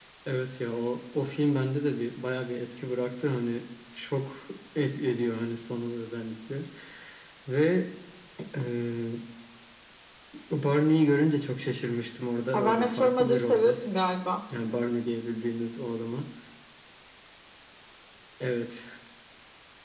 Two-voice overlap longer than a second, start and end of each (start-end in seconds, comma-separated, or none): 12.5-13.8